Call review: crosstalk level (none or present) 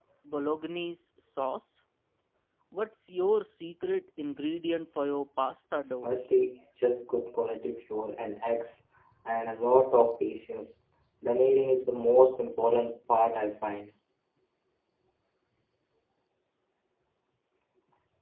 none